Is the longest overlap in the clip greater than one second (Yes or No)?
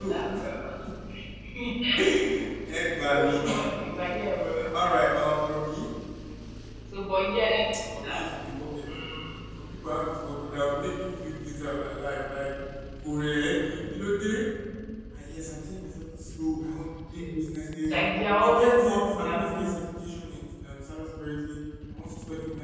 Yes